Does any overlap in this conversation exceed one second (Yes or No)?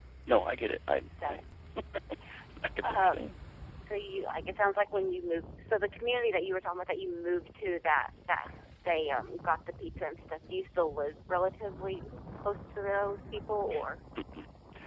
No